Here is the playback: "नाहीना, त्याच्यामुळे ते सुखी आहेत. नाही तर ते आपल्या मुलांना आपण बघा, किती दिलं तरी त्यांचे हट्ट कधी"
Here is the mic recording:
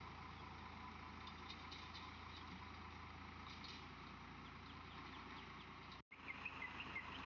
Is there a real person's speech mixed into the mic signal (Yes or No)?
No